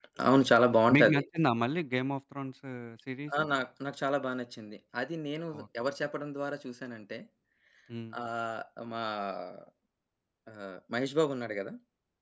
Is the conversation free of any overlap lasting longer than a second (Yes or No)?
Yes